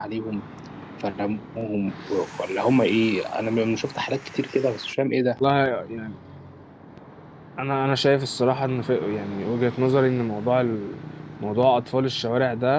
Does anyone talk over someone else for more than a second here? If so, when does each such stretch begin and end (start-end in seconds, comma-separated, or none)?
none